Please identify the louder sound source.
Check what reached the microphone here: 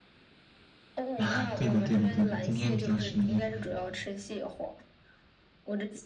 user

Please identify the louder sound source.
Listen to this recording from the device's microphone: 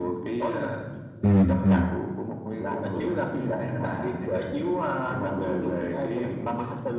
user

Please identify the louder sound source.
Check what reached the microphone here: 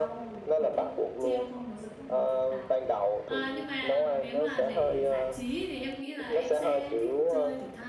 echo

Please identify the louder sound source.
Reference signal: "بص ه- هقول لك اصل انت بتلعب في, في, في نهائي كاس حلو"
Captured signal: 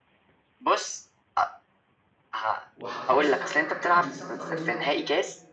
echo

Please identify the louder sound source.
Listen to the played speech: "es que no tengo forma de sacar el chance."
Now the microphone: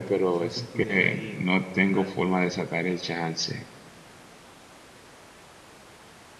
echo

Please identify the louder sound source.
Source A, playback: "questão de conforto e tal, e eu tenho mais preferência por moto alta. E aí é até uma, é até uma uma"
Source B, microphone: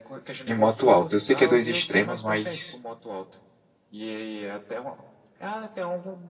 user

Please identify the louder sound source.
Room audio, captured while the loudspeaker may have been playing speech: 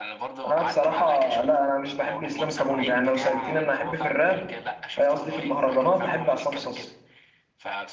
user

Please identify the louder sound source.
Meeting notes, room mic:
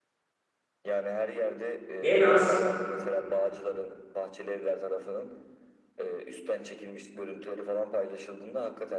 user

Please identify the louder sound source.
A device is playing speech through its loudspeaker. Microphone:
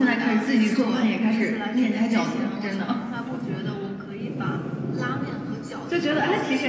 echo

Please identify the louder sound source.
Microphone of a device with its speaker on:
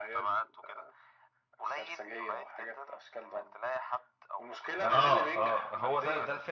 user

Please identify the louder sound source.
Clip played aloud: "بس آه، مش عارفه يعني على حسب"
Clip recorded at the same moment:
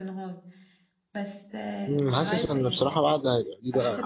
user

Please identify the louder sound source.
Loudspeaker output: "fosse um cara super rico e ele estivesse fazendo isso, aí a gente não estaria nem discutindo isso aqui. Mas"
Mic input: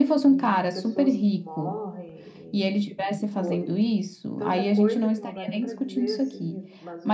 echo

